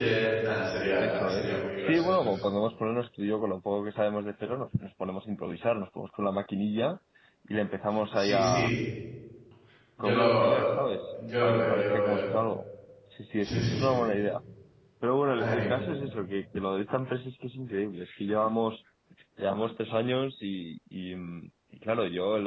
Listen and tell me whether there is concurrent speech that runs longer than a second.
Yes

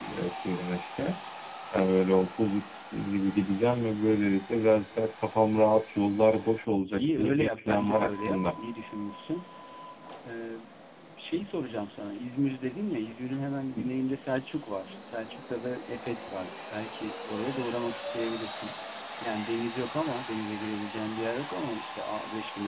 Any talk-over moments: Yes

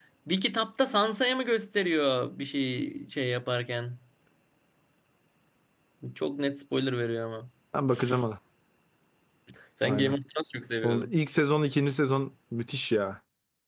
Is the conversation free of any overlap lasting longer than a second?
Yes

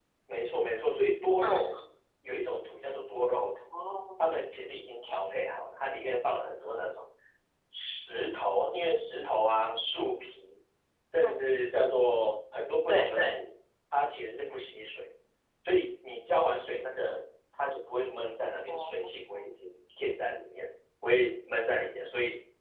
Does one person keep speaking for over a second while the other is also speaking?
No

